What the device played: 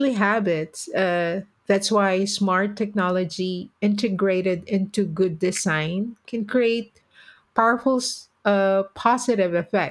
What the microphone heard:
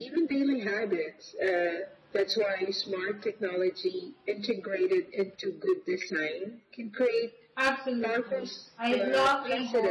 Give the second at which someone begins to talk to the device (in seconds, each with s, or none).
7.6 s